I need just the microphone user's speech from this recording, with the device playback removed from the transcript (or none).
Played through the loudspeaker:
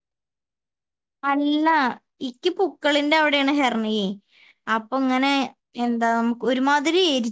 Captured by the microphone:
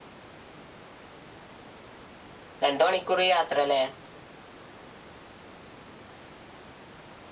രണ്ട് മണിക്കൂർ യാത്രല്ലേ